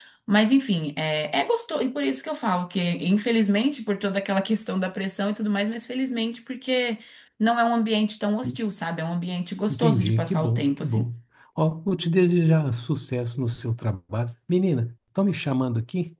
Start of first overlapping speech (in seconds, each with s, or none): 9.7 s